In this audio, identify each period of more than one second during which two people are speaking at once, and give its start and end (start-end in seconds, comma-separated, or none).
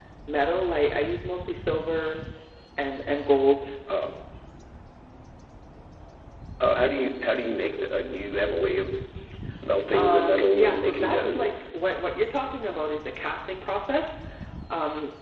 9.9-11.5